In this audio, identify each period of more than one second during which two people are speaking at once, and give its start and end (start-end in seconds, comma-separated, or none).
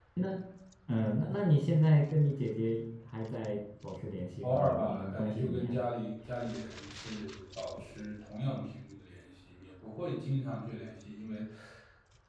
4.4-5.8